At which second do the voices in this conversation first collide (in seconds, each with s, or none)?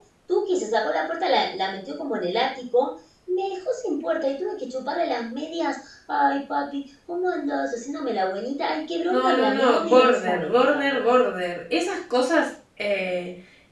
9.1 s